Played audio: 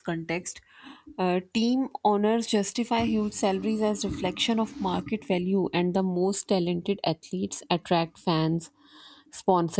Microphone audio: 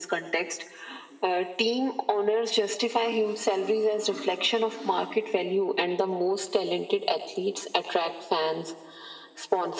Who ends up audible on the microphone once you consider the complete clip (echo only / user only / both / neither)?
echo only